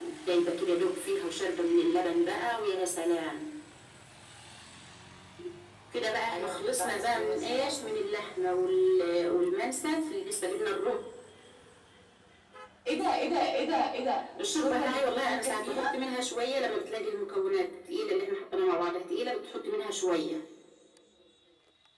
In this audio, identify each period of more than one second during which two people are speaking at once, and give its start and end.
6.3-7.9, 14.4-15.8

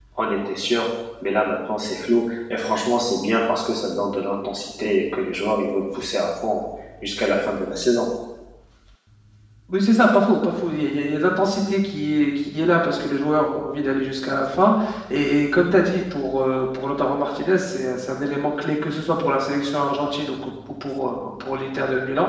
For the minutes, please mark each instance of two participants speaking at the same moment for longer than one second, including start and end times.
none

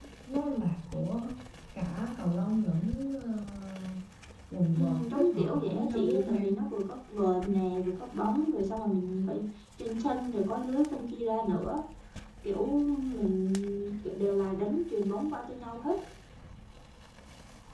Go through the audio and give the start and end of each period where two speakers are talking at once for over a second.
4.8-6.6

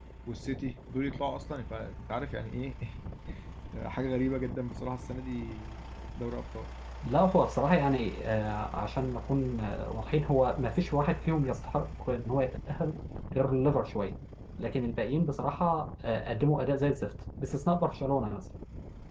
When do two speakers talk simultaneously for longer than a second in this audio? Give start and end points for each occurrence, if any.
none

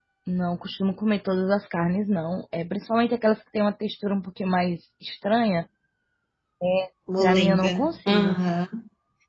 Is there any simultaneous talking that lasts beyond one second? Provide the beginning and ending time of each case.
7.2-8.4

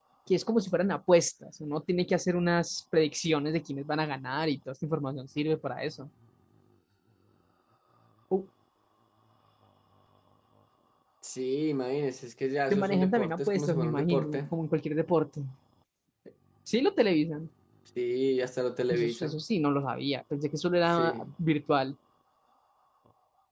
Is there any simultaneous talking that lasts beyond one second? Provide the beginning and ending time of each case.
12.7-14.5

